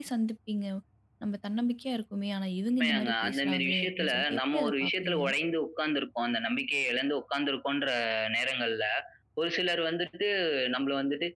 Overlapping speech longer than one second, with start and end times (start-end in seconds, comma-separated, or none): 2.8-5.2